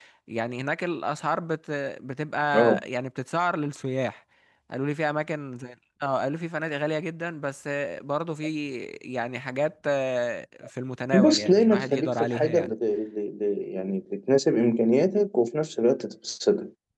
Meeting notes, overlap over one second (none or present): present